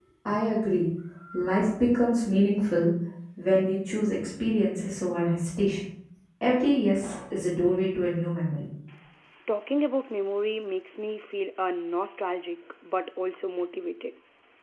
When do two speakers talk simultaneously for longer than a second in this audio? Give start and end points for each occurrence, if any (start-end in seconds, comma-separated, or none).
none